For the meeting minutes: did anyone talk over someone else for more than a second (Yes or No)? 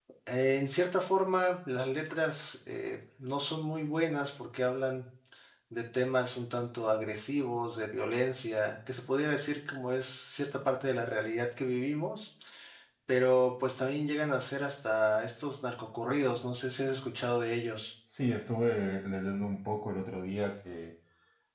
No